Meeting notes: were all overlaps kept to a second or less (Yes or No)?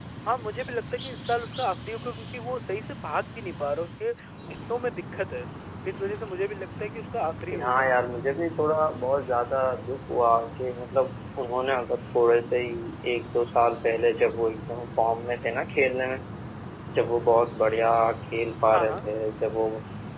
Yes